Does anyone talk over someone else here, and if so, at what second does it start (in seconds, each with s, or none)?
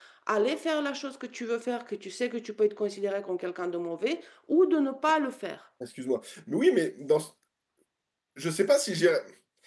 none